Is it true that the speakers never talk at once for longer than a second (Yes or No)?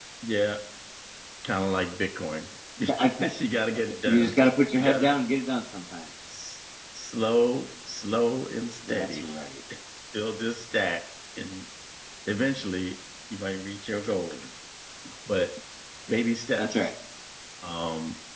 Yes